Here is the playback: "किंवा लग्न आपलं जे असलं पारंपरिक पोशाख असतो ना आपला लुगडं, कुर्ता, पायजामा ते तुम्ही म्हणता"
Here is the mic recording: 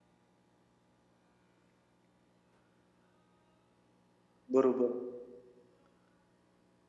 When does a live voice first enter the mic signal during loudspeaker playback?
4.5 s

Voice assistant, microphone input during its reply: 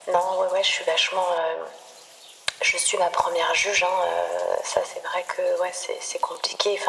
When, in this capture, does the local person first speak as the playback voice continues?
none

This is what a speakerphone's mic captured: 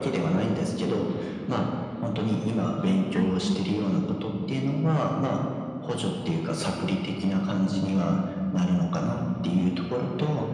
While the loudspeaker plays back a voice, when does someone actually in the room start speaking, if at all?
3.1 s

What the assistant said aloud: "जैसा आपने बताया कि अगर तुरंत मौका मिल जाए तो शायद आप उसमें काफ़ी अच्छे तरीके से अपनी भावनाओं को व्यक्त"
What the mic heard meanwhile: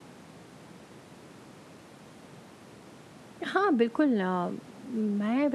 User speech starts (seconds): 3.5 s

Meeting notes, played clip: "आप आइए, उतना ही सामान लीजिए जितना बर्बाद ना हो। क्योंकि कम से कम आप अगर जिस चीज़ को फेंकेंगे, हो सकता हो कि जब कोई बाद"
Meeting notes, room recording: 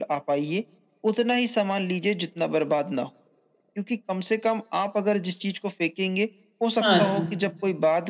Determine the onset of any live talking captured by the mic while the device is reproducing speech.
6.8 s

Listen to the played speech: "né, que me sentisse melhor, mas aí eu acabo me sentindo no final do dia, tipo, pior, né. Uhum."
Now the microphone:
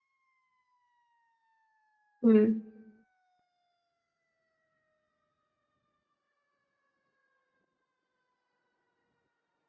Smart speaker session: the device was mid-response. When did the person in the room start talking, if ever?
2.2 s

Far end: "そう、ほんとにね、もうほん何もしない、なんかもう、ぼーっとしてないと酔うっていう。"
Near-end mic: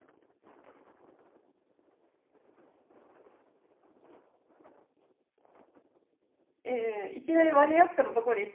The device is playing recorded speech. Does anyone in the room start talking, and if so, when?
6.6 s

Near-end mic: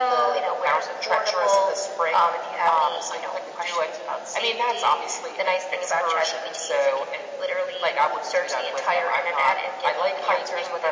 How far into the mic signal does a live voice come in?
none

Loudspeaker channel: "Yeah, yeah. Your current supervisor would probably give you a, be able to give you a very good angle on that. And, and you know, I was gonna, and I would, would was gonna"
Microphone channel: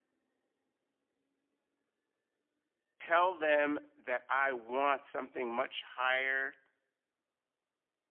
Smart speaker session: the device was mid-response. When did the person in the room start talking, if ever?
3.0 s

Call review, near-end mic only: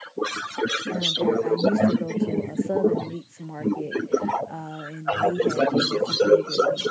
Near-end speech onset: 0.9 s

